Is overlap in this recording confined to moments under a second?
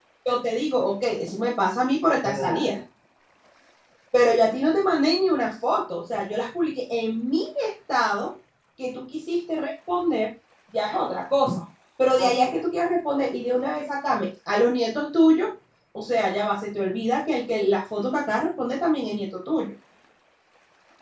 Yes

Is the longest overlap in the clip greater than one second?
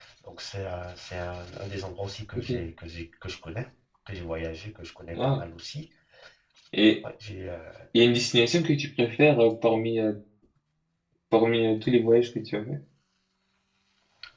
No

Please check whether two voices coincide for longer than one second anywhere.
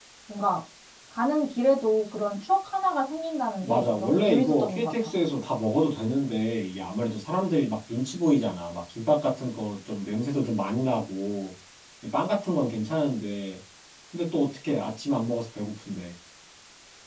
Yes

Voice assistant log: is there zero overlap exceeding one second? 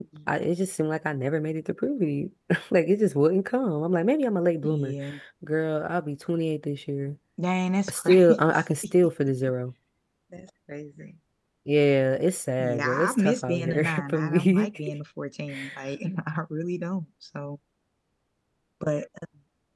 No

